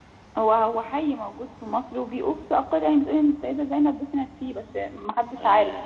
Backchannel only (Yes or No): No